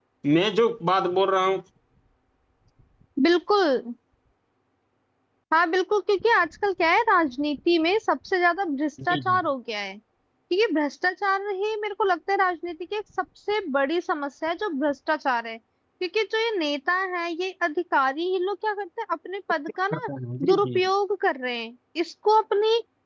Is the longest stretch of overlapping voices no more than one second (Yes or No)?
Yes